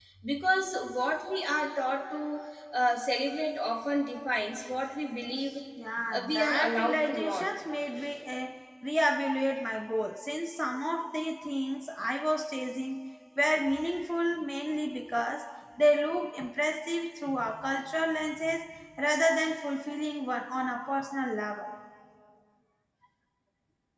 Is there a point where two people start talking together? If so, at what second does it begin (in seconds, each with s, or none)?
6.1 s